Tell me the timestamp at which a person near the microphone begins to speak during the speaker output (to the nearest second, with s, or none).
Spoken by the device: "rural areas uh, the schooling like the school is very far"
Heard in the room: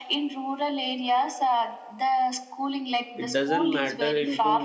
3 s